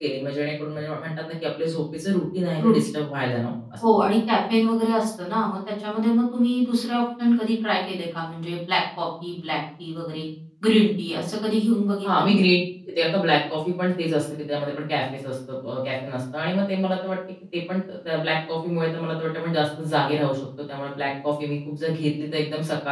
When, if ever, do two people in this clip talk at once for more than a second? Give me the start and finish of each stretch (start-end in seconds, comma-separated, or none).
none